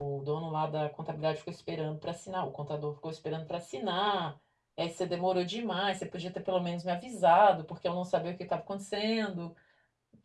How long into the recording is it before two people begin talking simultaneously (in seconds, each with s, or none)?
none